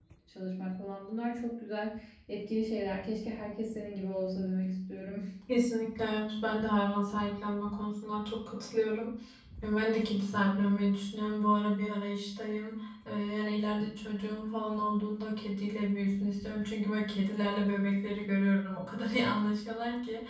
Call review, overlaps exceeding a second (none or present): none